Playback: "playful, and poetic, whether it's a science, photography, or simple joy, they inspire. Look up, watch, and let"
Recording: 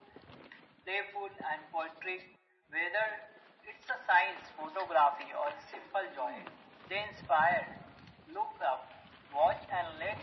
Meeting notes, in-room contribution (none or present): none